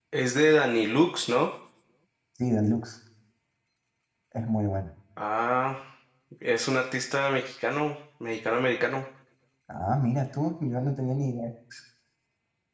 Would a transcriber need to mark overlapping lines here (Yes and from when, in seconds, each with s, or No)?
No